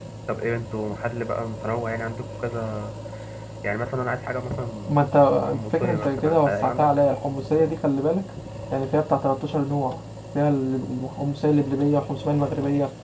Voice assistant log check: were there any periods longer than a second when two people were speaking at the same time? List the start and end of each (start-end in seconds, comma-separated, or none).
5.5-6.9